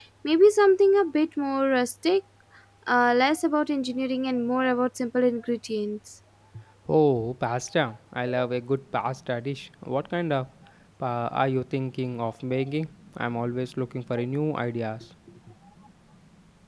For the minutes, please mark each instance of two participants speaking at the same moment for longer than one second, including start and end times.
none

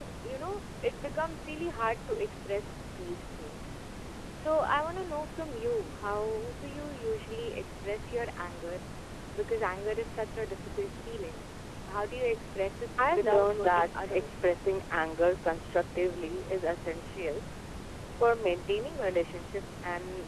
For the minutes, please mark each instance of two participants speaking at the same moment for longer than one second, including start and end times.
13.1-14.3

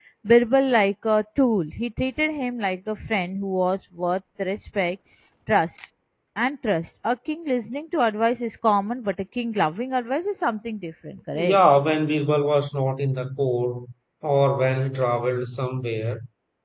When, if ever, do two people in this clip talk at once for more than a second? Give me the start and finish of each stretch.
none

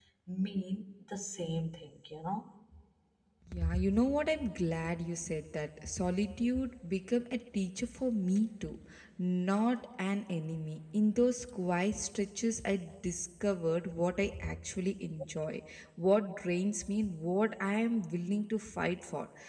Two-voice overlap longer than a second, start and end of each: none

